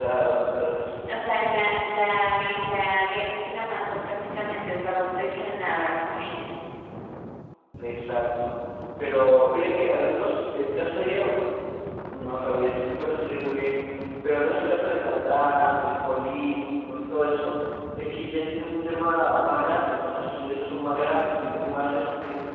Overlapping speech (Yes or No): No